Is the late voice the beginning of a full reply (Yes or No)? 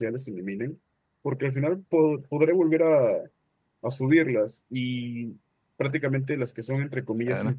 No